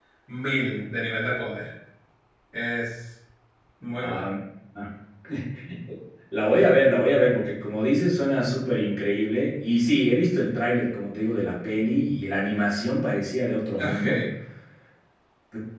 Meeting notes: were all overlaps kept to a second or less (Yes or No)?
Yes